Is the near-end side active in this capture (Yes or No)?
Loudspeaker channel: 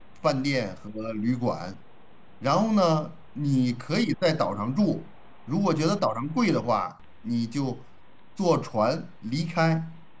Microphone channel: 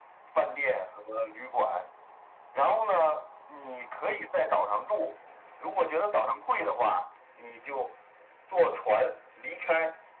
No